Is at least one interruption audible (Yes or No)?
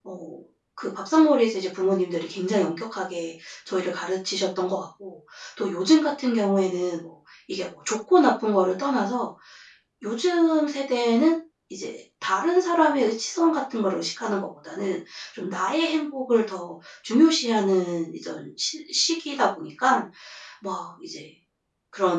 No